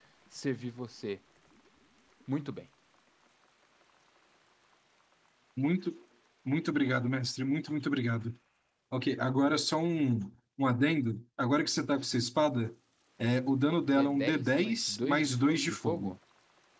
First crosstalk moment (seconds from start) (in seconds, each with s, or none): 13.9 s